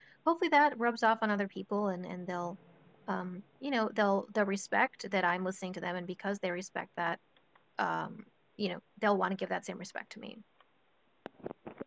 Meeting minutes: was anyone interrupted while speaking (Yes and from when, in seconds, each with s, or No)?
No